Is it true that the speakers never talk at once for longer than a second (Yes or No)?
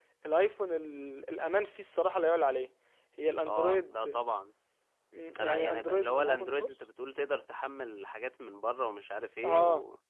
No